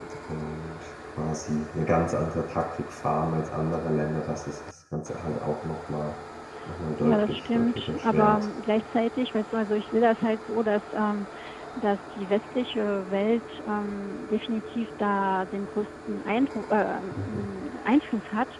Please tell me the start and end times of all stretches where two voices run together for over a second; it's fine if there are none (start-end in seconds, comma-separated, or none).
7.0-8.5